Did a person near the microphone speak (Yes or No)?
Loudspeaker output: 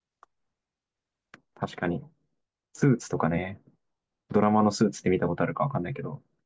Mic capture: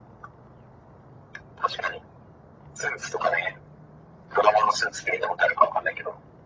No